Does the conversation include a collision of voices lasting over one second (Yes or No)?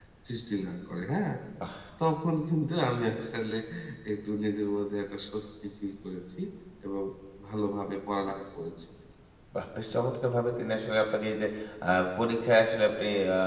No